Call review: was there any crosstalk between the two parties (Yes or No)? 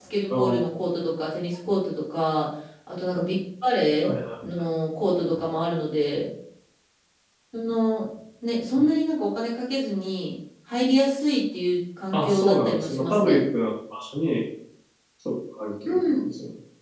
Yes